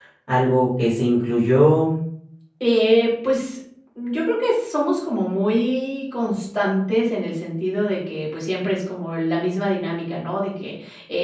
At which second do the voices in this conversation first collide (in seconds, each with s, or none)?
none